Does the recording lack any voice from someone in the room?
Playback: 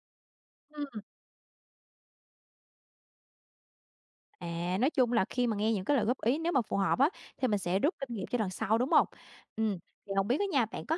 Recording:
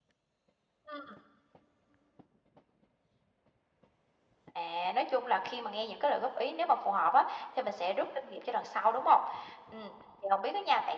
Yes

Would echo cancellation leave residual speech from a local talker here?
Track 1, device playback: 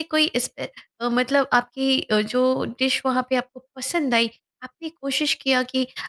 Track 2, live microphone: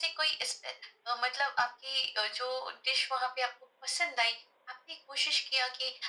No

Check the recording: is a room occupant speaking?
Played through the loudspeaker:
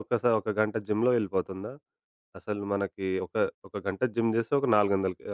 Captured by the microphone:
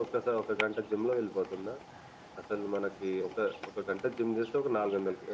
No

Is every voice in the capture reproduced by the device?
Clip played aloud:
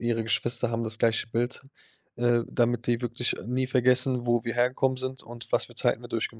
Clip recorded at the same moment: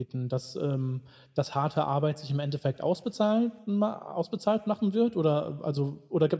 No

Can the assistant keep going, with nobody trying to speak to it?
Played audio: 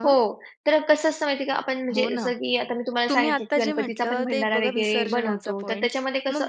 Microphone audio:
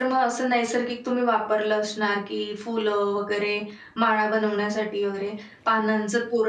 No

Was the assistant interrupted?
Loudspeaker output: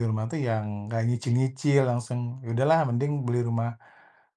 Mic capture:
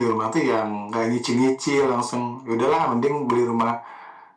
No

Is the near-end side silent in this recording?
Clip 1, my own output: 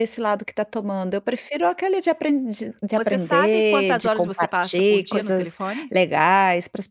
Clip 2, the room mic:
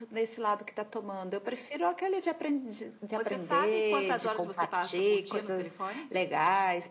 Yes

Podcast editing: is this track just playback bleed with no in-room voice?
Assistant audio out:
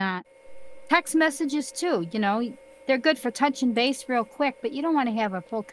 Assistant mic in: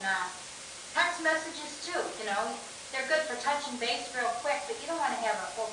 Yes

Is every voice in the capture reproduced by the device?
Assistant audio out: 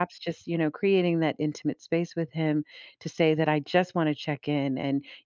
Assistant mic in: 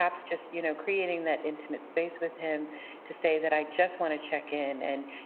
Yes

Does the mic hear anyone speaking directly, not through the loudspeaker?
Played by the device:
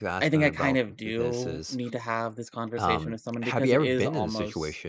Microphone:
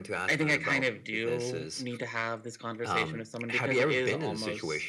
No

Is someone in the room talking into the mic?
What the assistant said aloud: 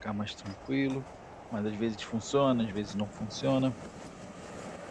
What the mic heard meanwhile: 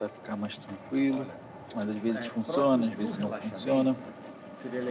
Yes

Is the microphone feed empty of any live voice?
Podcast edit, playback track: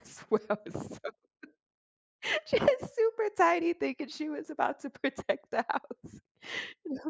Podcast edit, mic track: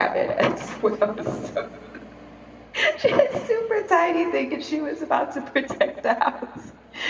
Yes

